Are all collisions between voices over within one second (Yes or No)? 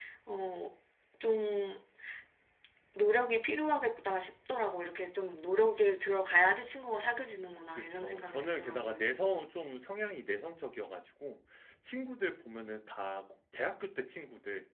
No